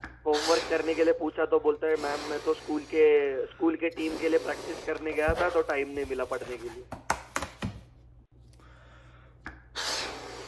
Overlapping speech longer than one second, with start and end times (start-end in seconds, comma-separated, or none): none